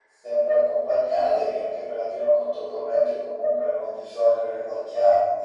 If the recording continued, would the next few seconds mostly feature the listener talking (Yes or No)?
No